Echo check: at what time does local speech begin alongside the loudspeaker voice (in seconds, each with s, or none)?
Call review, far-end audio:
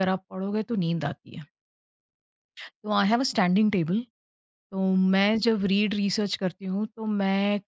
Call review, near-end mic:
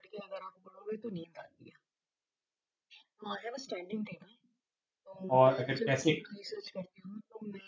5.3 s